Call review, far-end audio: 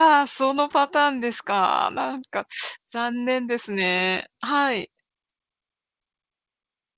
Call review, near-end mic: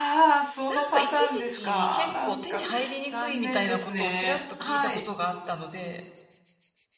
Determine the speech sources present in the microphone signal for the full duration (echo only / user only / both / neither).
both